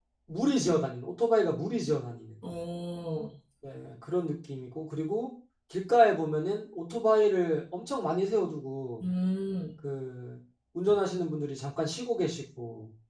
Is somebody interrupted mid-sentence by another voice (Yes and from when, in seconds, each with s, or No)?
No